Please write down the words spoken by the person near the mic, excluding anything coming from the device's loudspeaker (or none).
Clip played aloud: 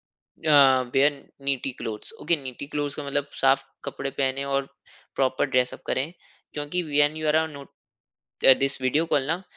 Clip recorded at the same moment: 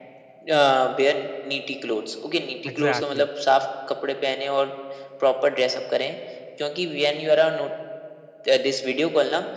एग्ज़ैक्टली।